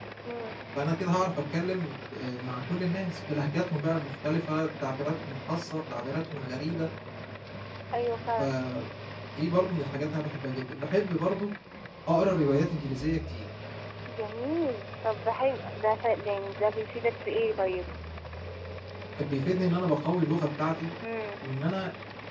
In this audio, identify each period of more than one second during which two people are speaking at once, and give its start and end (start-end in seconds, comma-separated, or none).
none